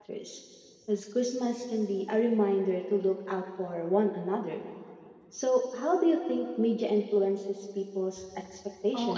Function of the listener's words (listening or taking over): taking over